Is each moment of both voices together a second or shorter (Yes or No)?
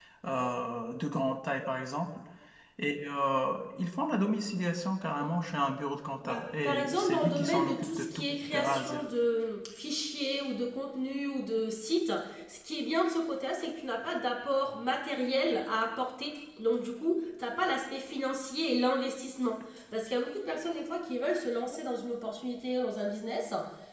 No